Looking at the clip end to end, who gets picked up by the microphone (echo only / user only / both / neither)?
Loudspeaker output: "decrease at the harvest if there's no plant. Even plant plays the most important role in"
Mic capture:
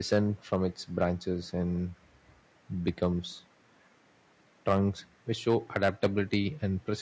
user only